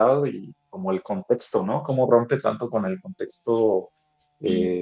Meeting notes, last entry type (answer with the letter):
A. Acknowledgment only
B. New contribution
A